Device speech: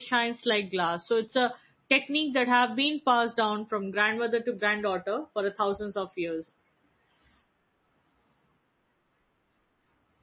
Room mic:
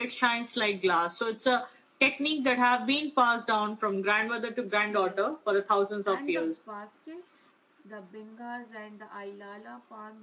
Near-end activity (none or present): present